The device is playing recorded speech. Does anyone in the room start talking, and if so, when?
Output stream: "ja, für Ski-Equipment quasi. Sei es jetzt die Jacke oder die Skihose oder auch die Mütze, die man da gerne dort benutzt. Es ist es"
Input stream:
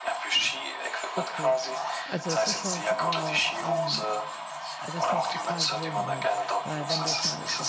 1 s

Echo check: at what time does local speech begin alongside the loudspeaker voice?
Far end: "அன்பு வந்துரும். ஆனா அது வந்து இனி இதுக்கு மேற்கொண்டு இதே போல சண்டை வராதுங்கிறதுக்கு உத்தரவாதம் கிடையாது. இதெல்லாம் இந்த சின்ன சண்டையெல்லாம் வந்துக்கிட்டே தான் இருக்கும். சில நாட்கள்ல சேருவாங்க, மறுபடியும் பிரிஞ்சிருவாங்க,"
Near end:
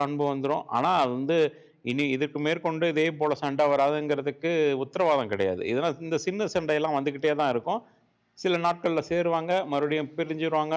none

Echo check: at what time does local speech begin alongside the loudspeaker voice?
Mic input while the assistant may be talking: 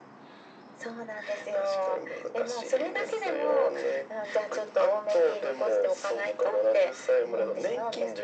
none

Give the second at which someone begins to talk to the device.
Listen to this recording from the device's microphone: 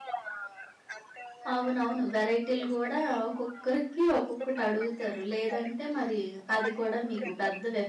2 s

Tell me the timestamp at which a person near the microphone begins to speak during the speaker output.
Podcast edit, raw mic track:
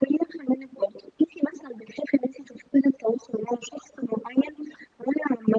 none

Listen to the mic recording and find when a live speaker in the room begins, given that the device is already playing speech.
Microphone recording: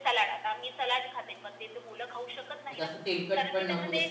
3 s

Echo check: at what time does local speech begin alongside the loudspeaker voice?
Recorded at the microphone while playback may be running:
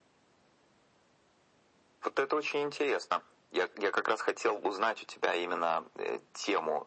none

